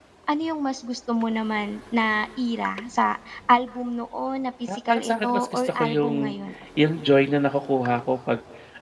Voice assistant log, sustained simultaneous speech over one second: present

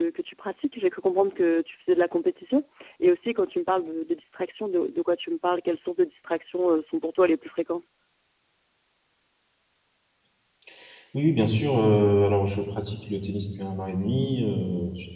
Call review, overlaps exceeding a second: none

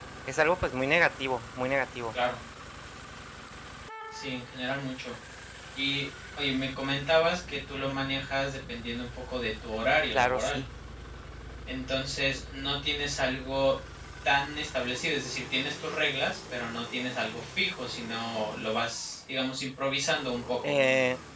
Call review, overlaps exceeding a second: none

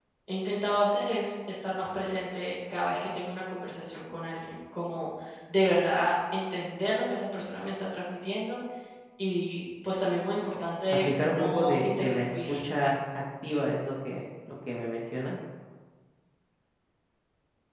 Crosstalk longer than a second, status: present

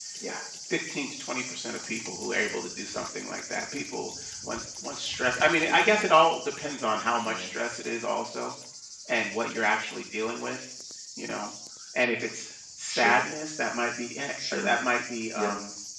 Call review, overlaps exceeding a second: none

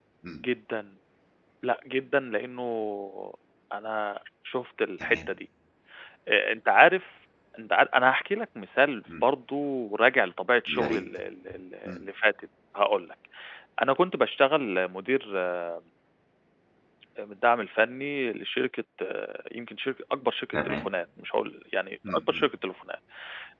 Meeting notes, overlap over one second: none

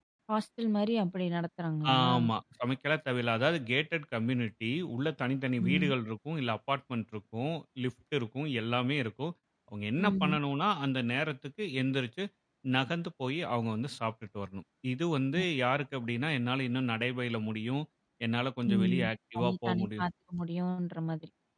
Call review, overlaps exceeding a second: present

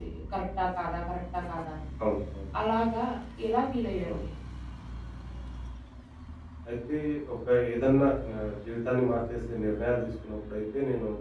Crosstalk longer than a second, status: none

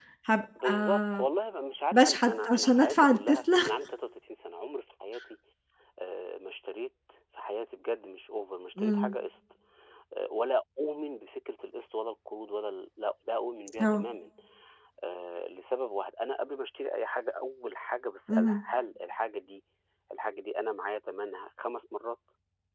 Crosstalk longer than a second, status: present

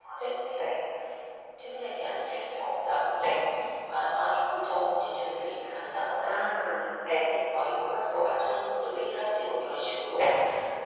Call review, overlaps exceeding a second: none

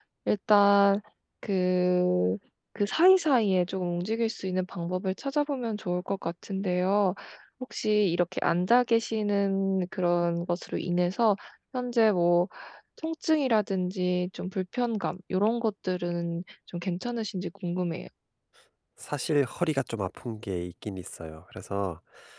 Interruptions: none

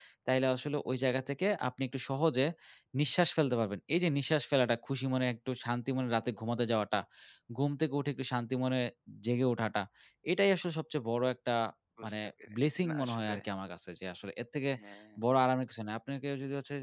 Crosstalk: present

